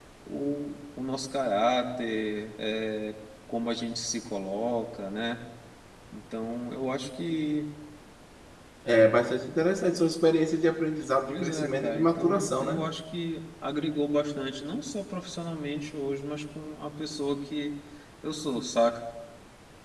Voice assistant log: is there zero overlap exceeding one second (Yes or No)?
No